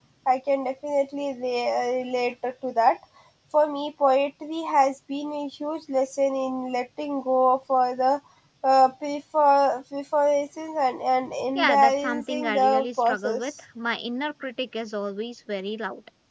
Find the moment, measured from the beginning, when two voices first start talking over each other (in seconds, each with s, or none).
11.6 s